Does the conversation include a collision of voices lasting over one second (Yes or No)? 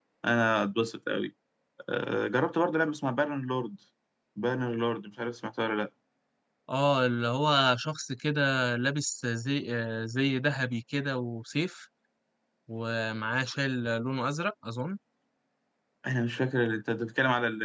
No